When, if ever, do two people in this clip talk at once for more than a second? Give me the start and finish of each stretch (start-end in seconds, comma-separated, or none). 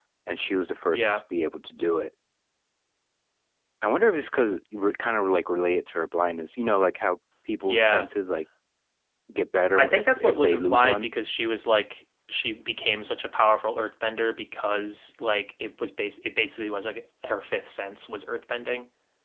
9.8-11.1